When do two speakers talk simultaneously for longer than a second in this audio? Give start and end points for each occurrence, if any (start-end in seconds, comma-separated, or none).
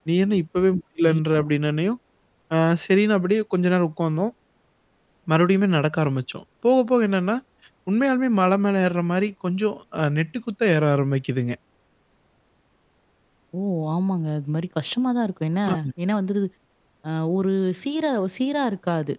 none